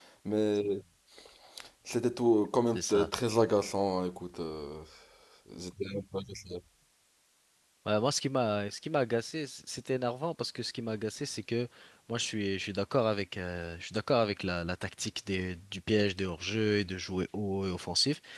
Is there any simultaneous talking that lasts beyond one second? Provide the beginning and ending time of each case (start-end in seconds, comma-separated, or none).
none